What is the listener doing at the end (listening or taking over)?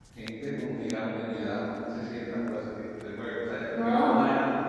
listening